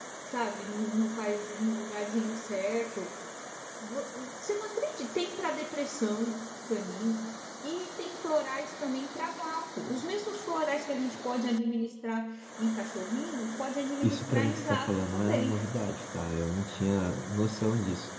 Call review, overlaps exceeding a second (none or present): present